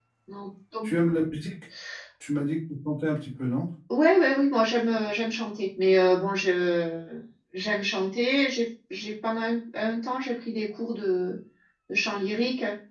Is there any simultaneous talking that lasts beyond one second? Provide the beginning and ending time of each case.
none

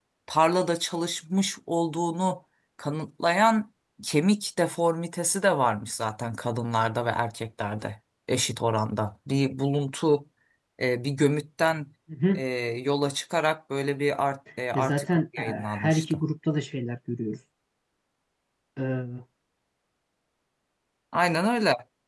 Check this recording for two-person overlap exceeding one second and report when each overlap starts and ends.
14.7-16.2

